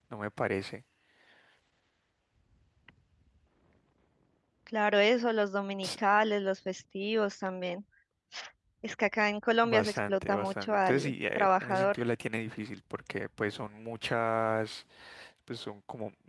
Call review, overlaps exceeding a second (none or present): present